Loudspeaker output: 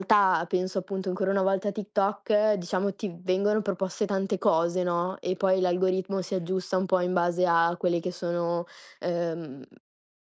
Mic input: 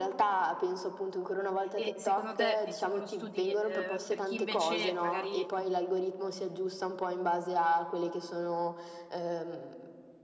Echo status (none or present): present